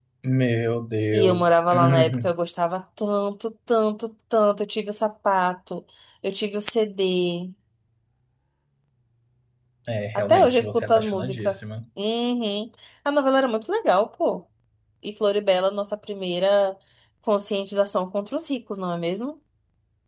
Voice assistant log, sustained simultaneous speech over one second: present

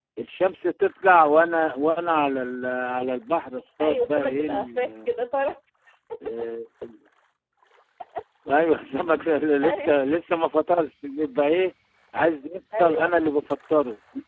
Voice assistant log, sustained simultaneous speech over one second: present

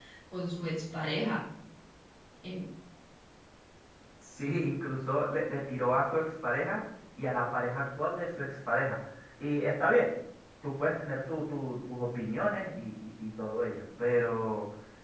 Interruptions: none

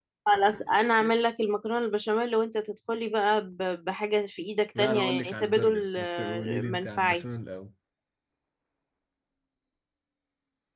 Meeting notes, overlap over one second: present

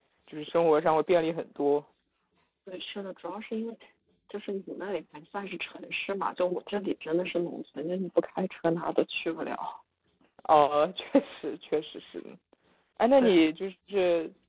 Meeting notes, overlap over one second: none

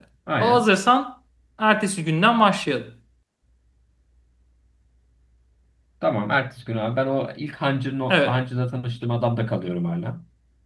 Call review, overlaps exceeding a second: none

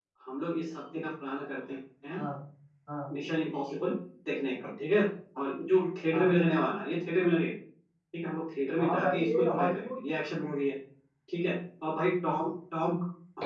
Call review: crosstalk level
present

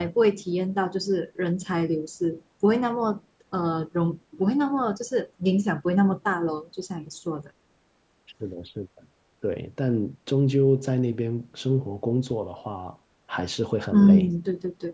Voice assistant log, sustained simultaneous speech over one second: none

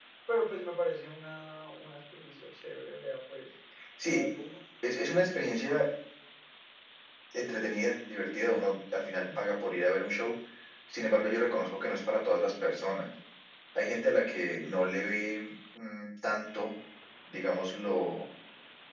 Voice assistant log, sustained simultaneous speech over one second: none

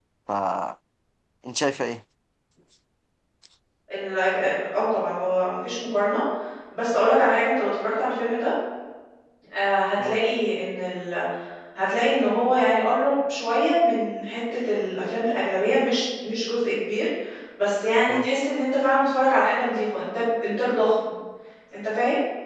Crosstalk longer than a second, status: none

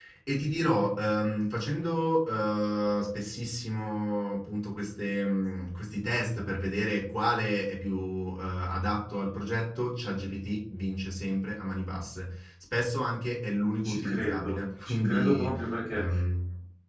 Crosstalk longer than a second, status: present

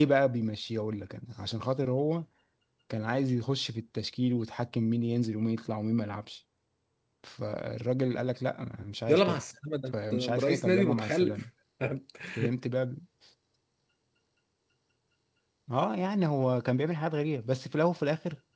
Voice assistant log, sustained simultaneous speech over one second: present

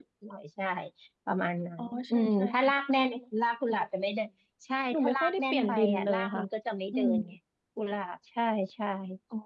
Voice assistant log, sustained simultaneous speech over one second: present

